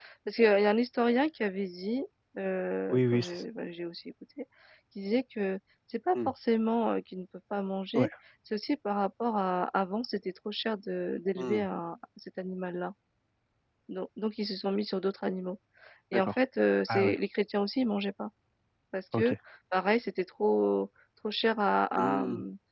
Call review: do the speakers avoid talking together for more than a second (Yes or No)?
Yes